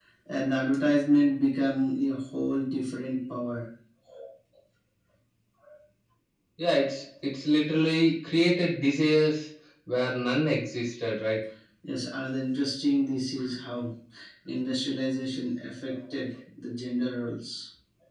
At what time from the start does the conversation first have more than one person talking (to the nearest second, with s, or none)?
none